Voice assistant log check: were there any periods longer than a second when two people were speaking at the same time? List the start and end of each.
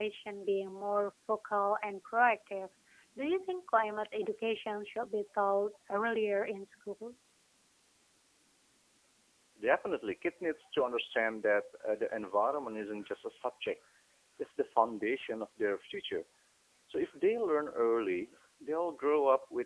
none

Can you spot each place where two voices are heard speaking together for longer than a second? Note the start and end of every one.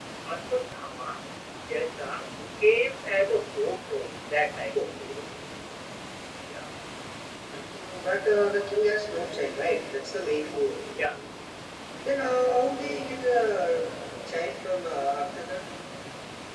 none

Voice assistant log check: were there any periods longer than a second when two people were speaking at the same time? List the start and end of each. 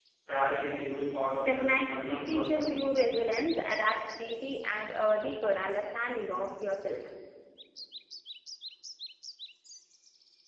1.4-2.8

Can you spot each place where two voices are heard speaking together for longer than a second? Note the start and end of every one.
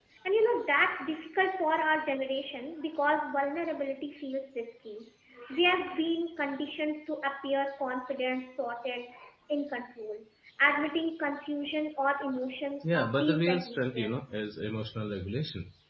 12.8-14.2

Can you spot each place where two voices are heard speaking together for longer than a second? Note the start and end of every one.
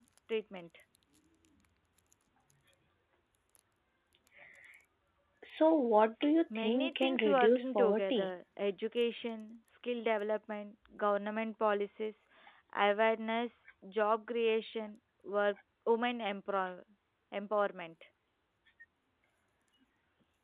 6.5-8.3

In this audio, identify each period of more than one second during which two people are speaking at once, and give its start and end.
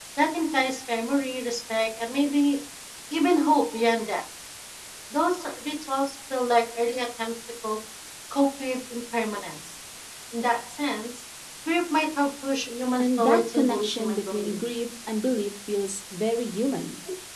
13.0-14.5

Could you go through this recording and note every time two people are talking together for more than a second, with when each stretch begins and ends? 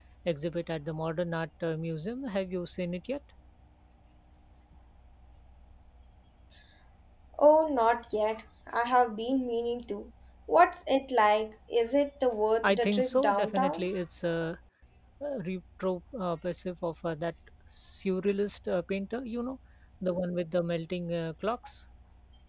12.6-13.9

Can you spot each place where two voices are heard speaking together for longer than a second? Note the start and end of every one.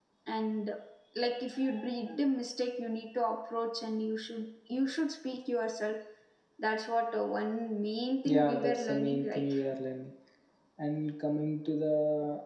8.2-9.5

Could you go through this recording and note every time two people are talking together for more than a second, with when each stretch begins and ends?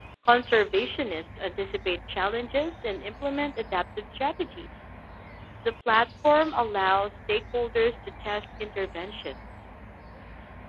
none

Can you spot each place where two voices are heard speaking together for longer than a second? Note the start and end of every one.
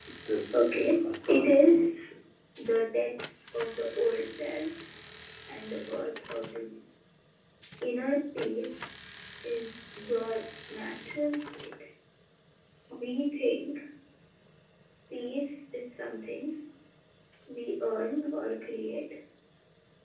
0.5-1.9

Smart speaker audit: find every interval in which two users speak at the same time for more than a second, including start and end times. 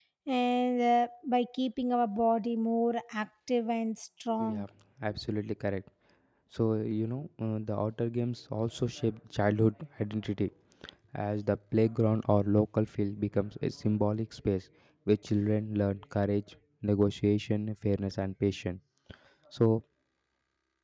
none

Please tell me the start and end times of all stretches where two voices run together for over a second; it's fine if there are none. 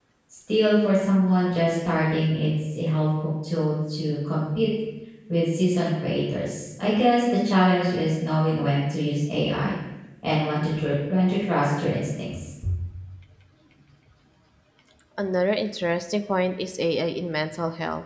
none

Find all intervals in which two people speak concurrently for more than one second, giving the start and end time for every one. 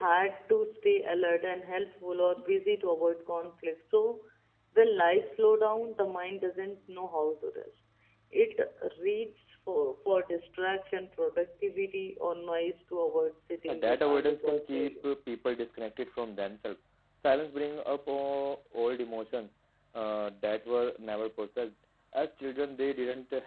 13.7-15.1

